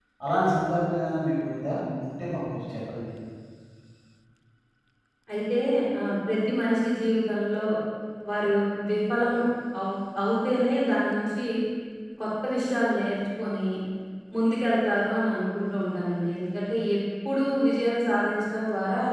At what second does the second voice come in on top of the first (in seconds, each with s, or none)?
none